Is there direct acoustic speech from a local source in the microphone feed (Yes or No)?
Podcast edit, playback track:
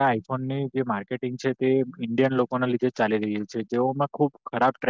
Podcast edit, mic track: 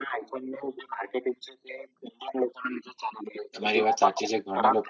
Yes